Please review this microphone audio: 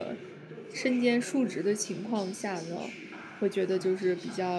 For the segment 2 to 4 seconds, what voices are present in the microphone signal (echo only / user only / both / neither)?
both